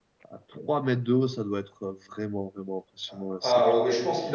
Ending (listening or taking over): taking over